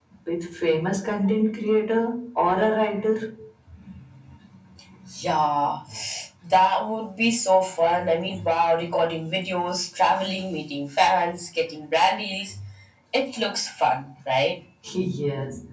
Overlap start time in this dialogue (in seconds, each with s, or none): none